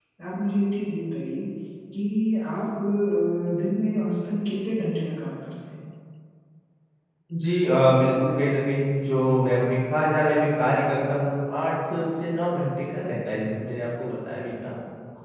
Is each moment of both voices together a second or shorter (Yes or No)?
Yes